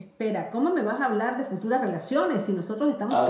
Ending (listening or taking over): listening